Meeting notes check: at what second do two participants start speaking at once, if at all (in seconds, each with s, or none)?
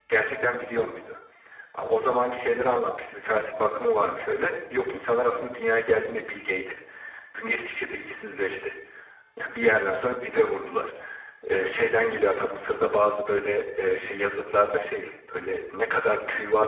none